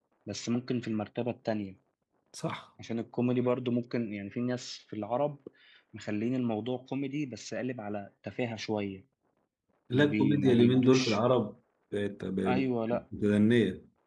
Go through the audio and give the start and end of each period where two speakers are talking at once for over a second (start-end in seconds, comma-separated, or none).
9.9-11.2